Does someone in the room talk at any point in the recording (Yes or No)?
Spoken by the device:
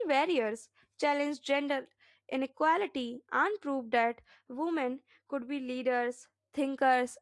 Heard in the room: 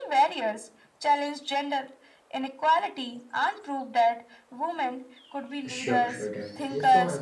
Yes